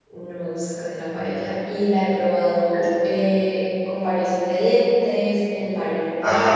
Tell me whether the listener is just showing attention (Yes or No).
Yes